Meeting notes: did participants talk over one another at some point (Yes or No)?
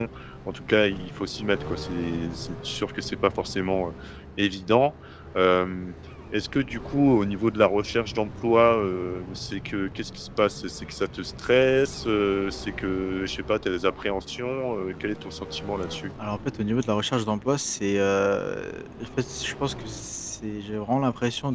No